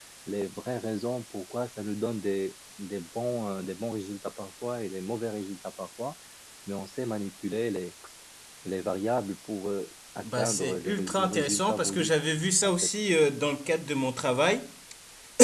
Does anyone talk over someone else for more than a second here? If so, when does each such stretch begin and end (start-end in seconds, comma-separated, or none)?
10.2-12.1